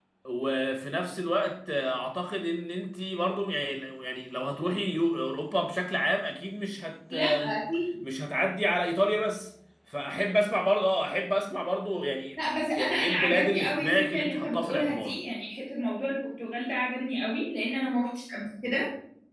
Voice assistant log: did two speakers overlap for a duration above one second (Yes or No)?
Yes